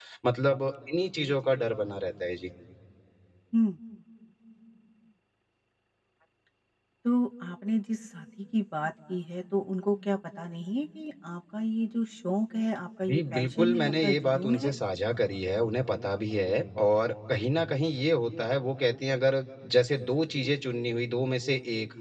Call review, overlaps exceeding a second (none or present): present